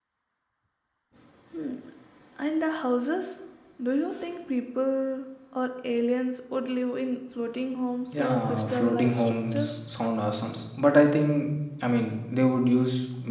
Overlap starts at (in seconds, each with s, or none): 8.1 s